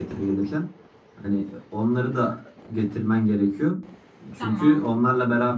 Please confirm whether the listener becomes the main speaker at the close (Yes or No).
No